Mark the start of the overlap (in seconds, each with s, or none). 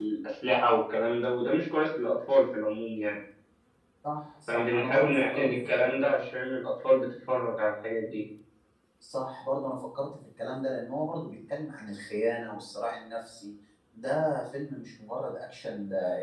4.5 s